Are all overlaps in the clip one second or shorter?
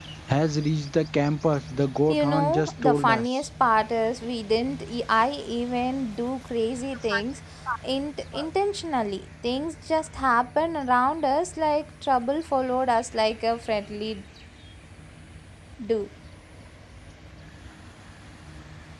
No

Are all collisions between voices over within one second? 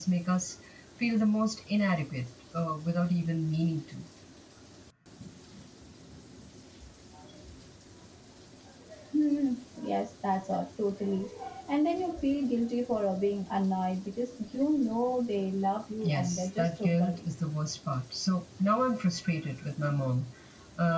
No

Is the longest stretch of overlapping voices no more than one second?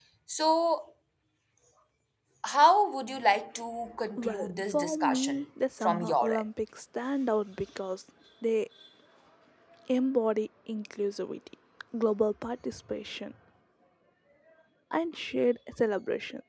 No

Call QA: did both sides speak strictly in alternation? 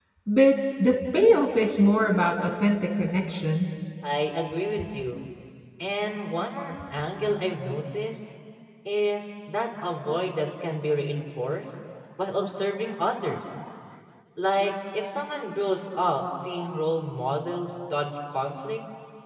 Yes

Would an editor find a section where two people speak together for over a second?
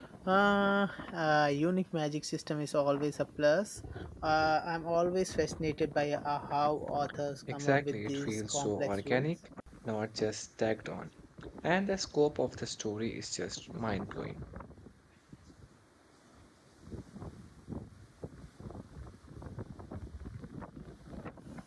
Yes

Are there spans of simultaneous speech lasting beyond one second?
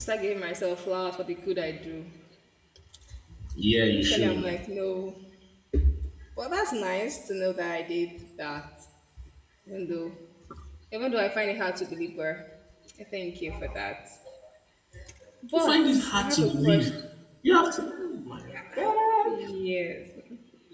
Yes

